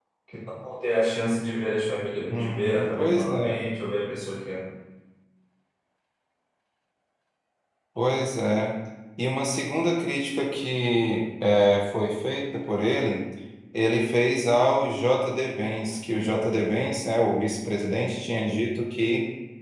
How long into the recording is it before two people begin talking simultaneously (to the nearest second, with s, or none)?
2 s